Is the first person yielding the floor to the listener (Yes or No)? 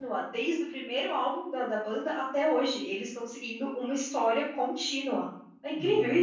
Yes